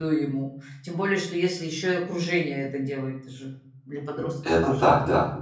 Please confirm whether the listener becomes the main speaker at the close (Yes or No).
Yes